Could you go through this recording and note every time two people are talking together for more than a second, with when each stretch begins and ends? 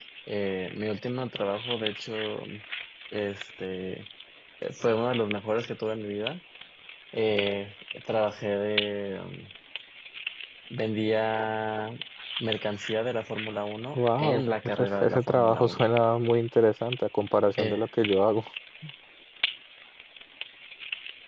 13.9-15.9

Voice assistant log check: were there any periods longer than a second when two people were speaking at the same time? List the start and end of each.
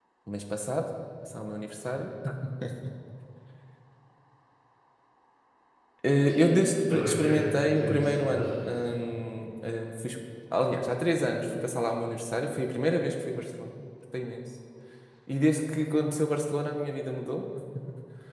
6.3-8.7

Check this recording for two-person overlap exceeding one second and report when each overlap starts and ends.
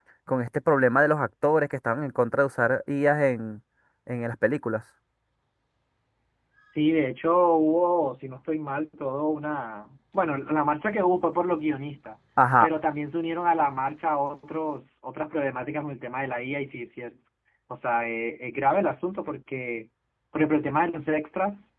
none

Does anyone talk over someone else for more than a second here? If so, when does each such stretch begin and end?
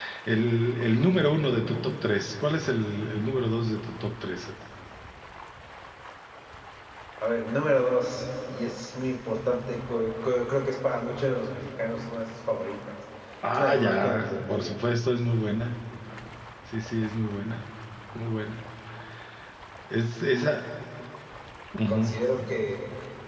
13.5-14.8

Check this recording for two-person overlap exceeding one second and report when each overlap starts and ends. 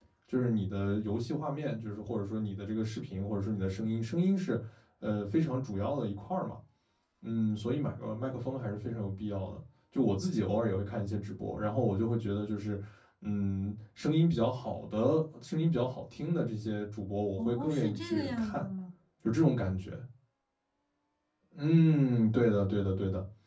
17.4-18.6

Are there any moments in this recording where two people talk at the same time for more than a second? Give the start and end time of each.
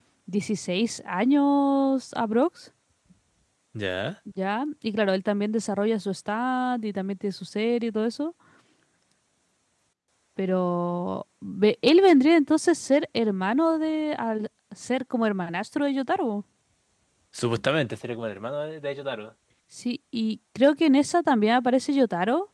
none

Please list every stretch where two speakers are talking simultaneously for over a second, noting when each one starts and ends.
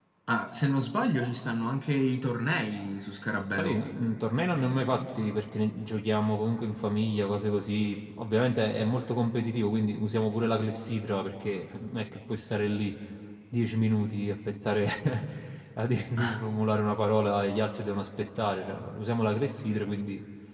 none

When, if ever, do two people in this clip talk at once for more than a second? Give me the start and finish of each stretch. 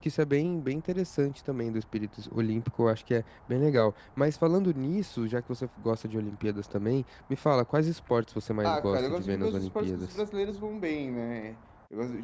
8.6-10.1

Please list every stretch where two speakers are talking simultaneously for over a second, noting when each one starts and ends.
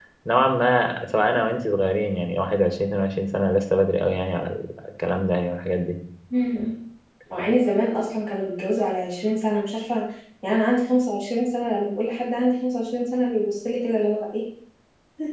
none

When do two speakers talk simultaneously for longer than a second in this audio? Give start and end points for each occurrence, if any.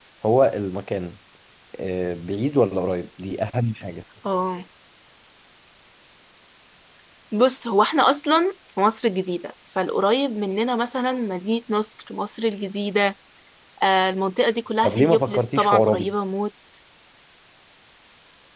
14.8-16.1

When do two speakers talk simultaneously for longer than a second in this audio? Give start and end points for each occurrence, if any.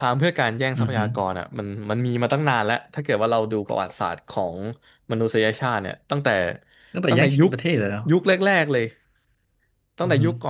none

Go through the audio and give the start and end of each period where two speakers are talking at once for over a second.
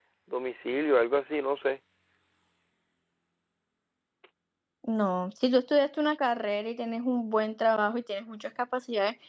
none

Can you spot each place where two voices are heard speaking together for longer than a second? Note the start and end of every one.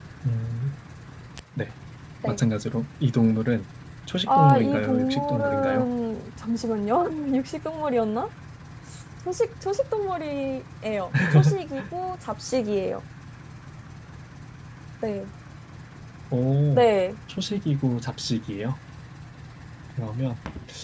4.3-5.8

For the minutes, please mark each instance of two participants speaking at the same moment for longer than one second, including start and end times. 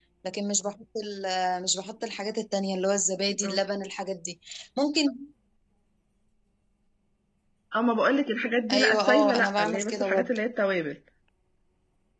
8.7-10.3

